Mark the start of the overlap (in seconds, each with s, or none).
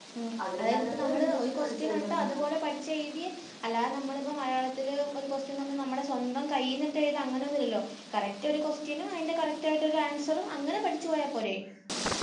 0.6 s